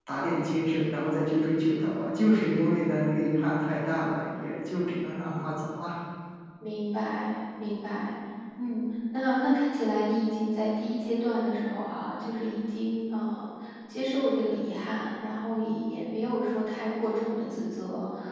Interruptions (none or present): none